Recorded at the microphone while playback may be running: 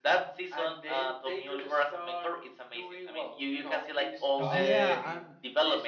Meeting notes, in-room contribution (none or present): present